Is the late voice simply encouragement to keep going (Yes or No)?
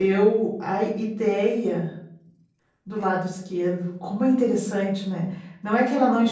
Yes